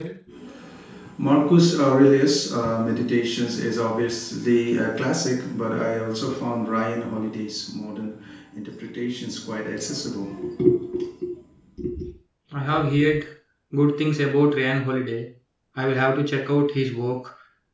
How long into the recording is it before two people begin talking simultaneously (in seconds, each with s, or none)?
none